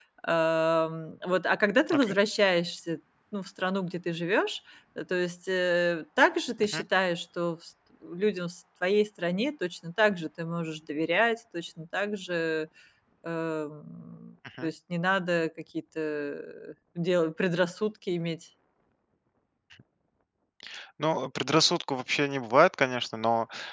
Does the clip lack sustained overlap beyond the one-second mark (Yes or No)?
Yes